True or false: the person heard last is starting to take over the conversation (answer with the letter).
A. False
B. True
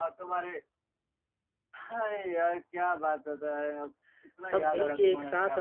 B